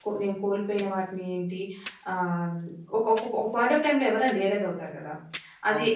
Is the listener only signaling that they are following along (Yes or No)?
No